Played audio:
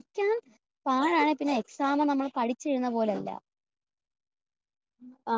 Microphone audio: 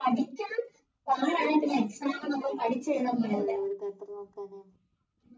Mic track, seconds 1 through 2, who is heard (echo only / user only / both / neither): echo only